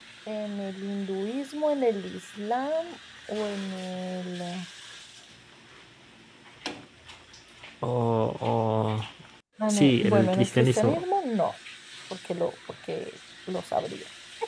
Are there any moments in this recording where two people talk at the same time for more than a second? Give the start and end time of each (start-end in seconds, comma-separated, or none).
9.7-11.0